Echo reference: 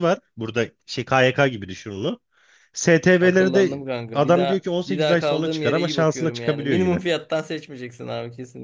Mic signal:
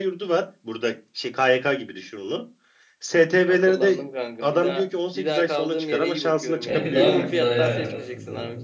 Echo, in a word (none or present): present